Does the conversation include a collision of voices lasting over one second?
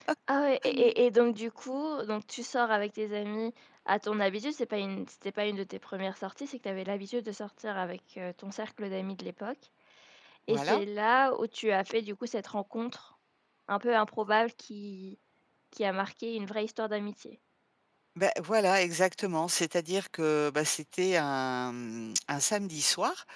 No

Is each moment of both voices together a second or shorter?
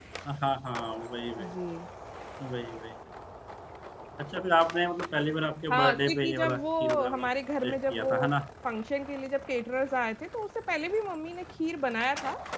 No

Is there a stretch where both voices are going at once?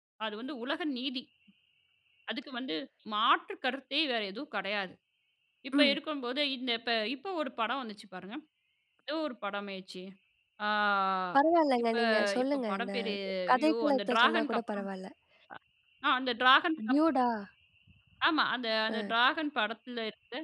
Yes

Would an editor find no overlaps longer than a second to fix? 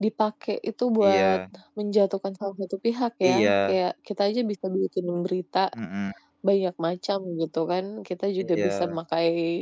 Yes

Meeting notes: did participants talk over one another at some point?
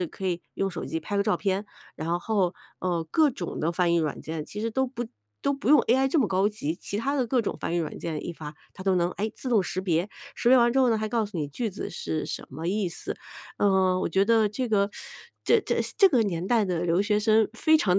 No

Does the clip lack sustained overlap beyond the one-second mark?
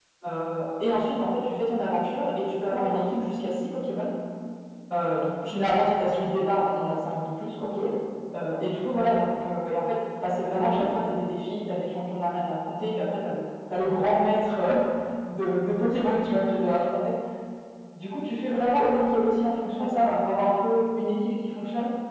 Yes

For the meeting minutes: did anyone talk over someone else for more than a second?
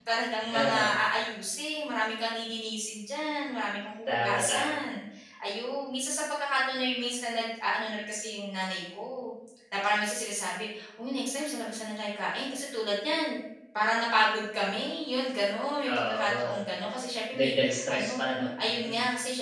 Yes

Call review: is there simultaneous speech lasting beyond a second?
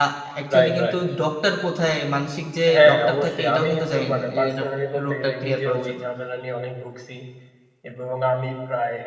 Yes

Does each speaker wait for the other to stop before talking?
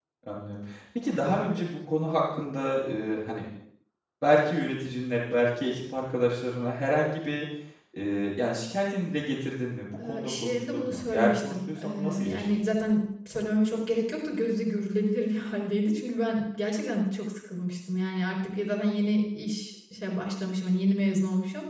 No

